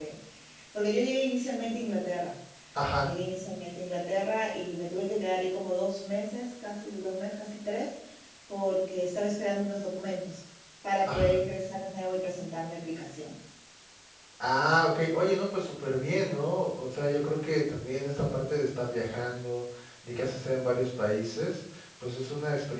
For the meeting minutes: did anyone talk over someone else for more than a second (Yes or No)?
No